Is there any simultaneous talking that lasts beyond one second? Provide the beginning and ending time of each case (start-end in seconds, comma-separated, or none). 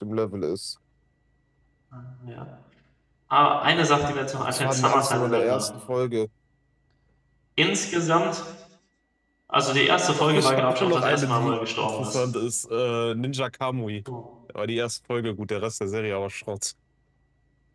4.4-5.6, 10.2-12.2